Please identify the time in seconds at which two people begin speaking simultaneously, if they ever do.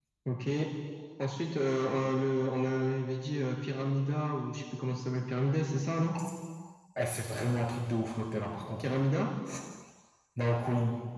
none

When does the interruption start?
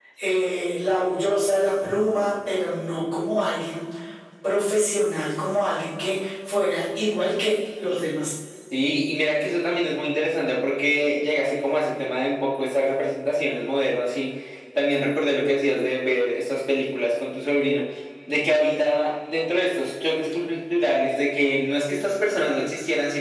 none

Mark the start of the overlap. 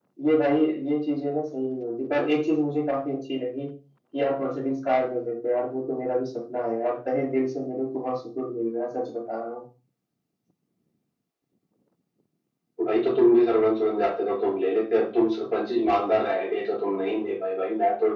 none

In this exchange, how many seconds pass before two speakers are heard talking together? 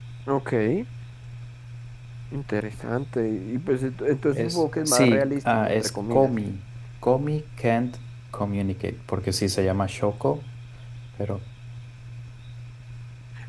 4.3 s

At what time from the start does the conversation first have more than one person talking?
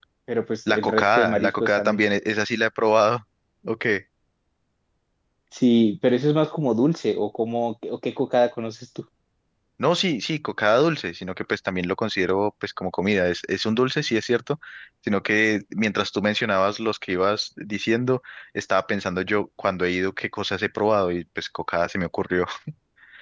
0.7 s

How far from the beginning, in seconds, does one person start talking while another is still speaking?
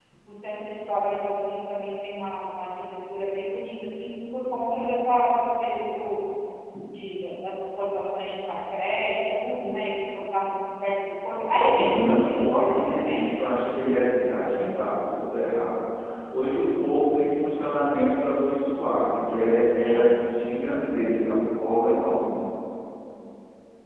11.3 s

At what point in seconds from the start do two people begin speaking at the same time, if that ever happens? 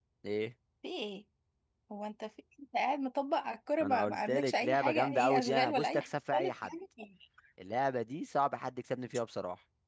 3.8 s

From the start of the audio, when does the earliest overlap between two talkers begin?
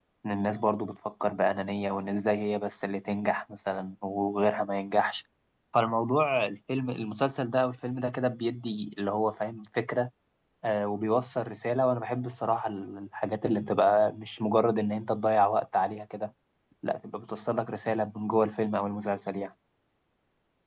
none

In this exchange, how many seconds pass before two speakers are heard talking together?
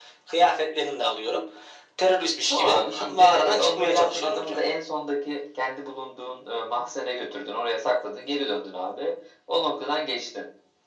2.5 s

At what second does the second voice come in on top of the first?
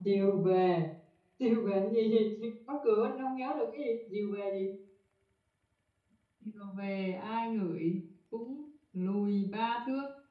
none

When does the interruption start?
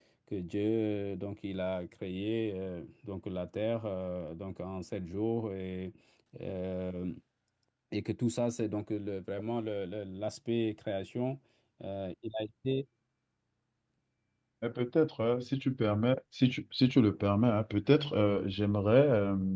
none

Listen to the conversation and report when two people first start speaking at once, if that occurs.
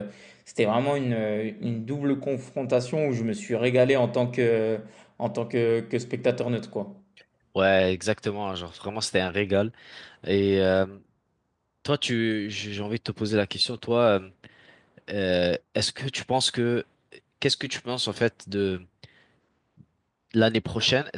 none

